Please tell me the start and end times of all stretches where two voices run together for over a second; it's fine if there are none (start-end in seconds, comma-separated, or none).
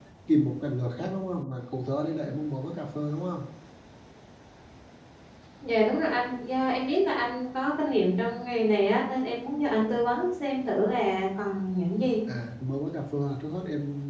none